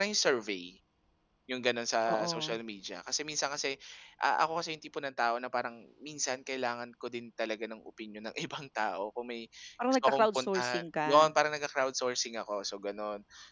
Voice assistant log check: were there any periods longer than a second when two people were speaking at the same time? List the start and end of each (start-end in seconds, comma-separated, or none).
10.0-11.3